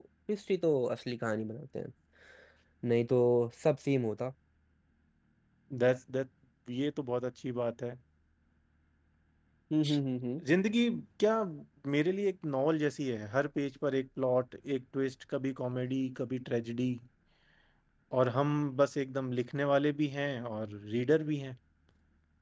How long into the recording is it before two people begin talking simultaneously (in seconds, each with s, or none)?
none